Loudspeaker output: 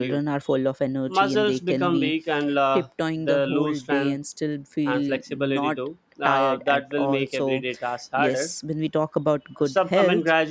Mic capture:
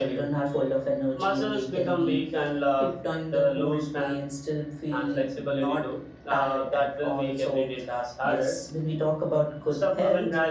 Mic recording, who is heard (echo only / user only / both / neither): echo only